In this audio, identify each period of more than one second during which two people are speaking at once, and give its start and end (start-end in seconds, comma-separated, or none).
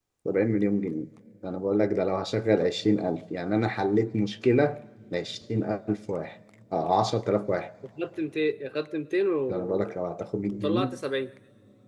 none